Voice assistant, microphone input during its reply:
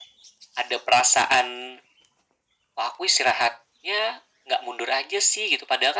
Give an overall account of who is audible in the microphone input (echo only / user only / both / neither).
echo only